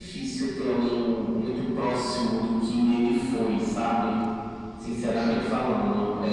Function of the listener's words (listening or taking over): listening